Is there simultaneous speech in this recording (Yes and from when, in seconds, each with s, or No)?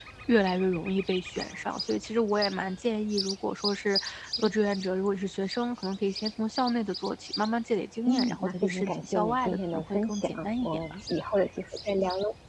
Yes, from 8.1 s